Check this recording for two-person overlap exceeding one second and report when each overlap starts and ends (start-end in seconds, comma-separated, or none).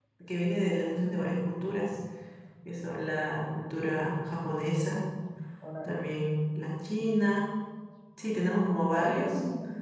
none